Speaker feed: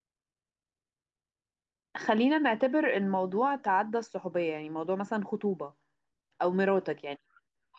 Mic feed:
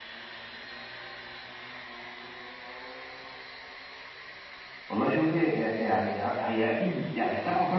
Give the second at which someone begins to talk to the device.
4.9 s

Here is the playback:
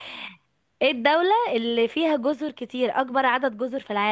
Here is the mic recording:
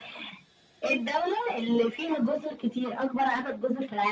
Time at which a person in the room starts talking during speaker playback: none

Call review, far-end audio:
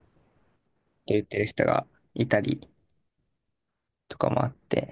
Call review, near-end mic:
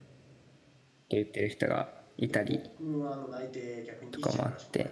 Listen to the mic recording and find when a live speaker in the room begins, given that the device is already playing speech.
2.3 s

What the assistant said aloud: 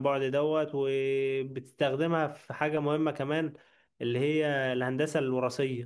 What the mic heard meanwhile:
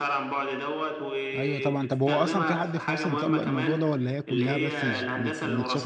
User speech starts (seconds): 1.3 s

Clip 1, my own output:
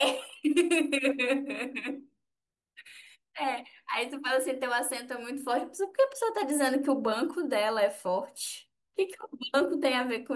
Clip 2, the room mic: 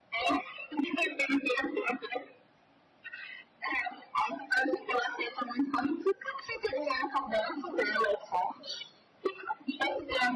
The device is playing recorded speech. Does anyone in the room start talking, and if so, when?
none

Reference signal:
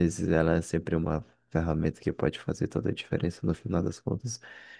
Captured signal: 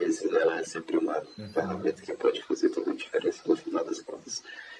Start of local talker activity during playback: 1.4 s

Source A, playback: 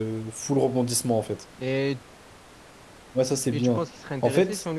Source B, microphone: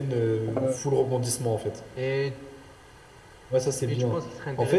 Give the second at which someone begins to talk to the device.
0.5 s

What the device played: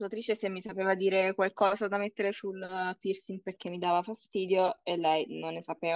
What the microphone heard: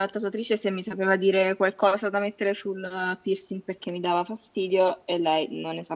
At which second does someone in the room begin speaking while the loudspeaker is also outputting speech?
none

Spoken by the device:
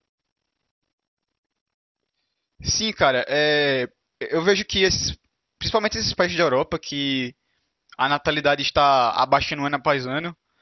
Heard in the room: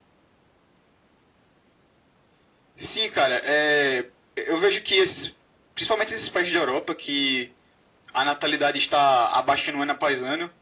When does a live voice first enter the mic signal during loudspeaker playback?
none

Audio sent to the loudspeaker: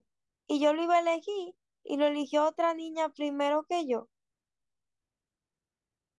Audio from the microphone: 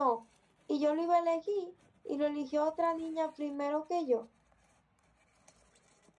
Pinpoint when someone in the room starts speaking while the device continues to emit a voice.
none

